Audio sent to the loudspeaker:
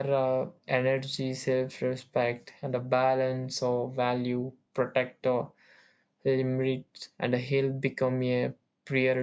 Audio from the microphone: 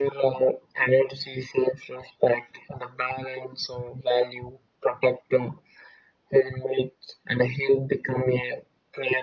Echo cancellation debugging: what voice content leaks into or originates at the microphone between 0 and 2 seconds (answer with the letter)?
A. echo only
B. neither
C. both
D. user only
A